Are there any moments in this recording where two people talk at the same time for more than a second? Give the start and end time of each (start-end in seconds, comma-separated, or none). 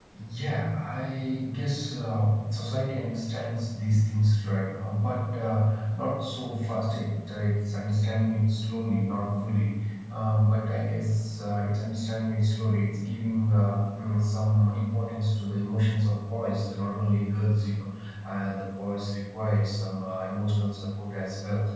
none